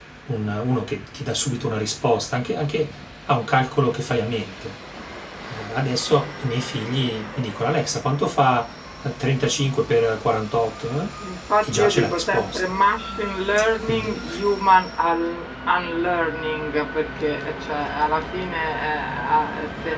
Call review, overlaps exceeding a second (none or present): present